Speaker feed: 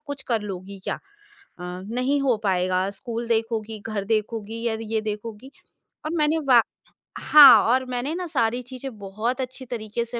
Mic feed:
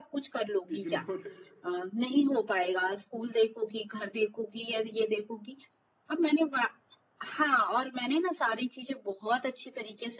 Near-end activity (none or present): present